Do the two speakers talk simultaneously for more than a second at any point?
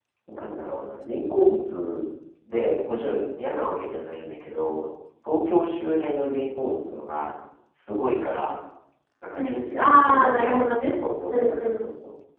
Yes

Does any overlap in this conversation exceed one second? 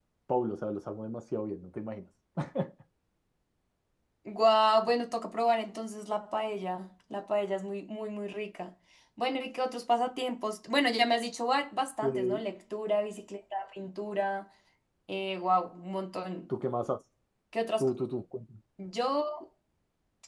No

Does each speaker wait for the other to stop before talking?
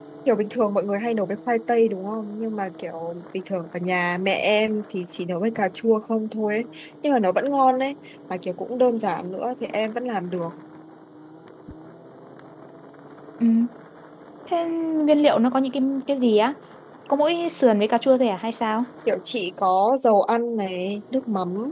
Yes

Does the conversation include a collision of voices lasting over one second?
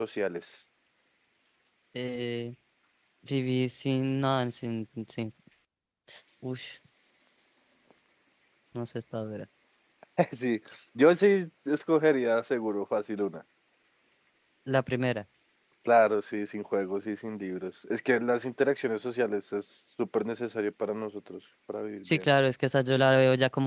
No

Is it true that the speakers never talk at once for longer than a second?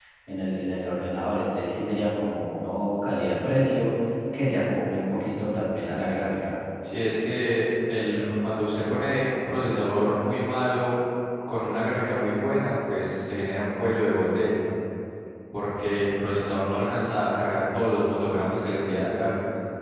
Yes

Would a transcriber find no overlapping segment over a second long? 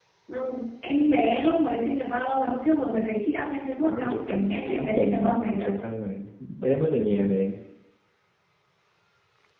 No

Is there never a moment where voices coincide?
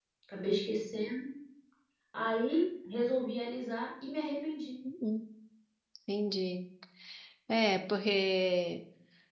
Yes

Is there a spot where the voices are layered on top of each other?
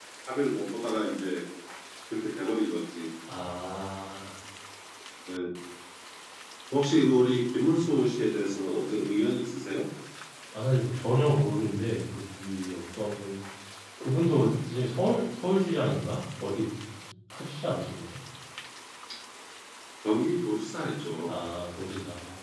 No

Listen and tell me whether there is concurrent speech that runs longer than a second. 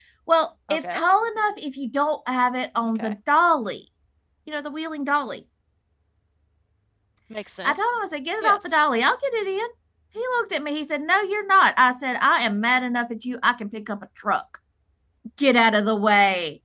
No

